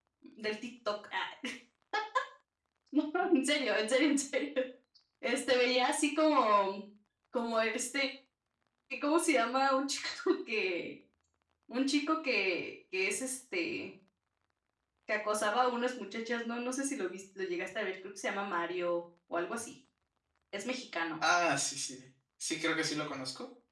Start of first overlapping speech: none

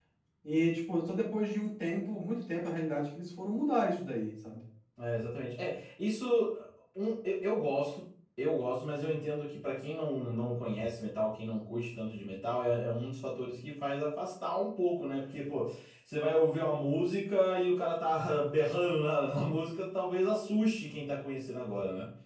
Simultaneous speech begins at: none

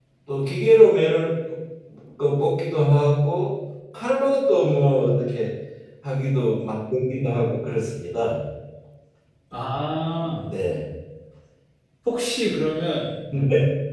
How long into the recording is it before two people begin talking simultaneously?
none

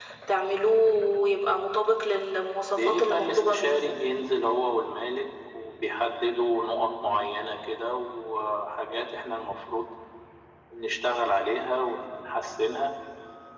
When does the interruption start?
2.7 s

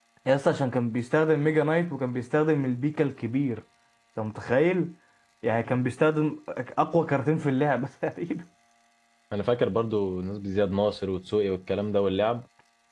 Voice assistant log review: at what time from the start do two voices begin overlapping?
none

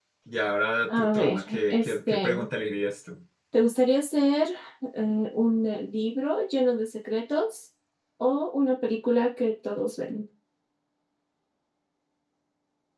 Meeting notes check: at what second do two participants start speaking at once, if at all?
1.0 s

